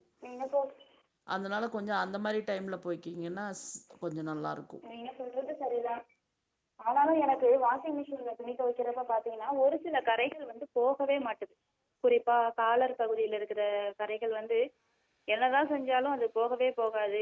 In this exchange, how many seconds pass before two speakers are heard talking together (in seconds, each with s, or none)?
none